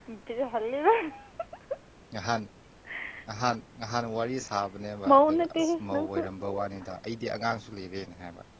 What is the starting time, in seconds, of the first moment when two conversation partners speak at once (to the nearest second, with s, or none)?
5 s